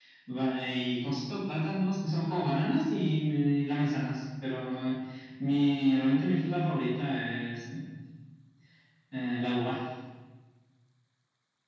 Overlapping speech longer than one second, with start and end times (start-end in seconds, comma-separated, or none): none